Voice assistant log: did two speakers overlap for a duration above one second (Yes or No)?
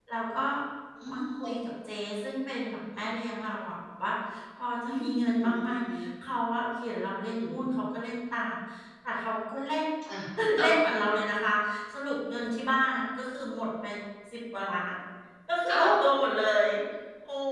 No